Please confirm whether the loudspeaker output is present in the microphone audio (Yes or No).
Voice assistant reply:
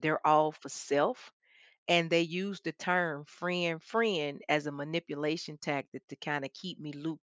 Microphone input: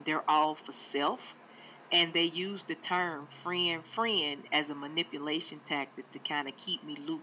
Yes